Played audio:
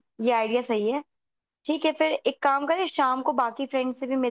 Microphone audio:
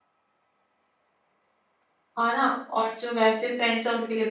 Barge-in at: 2 s

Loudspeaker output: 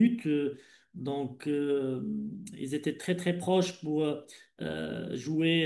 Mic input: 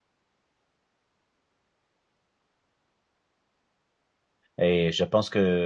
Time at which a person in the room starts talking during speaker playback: 5 s

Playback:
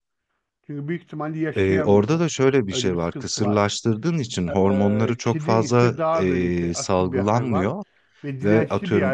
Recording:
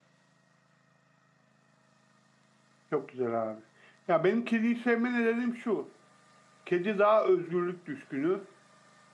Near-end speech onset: 3 s

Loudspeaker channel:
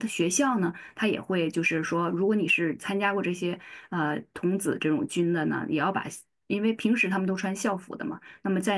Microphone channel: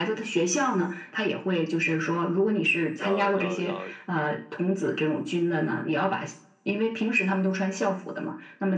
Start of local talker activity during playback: 3 s

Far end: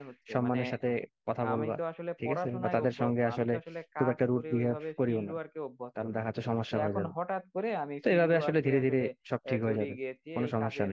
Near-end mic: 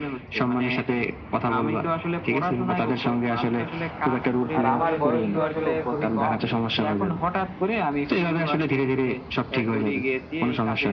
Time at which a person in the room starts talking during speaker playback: 5 s

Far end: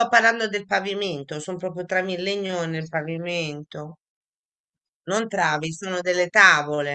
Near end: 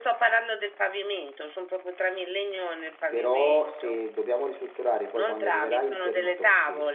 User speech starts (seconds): 3 s

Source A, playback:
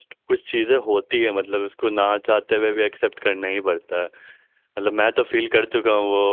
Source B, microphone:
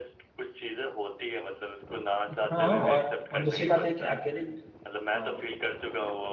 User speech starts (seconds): 2 s

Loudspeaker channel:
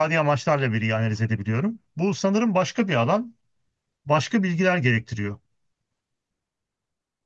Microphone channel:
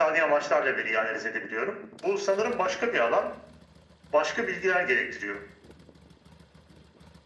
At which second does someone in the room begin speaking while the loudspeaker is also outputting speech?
none

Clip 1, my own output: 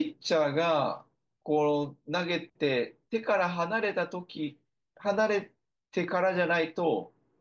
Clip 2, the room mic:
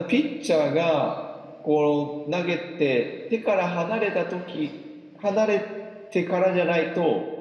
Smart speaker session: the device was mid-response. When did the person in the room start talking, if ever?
none

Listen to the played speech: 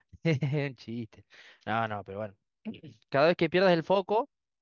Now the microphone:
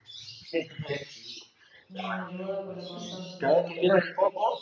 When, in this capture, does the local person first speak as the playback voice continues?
2 s

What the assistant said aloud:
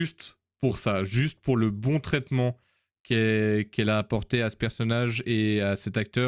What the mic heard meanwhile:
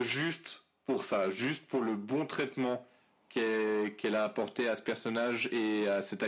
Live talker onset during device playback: none

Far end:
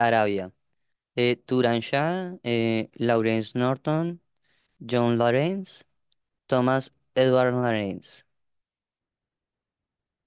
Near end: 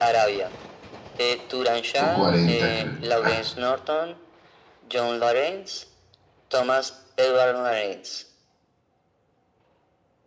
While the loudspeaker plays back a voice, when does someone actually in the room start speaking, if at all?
2 s

